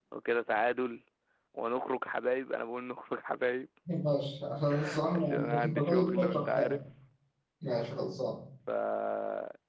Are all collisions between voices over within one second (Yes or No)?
No